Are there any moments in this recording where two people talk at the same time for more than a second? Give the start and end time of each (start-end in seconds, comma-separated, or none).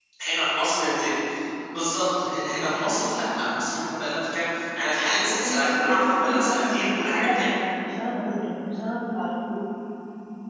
5.1-7.5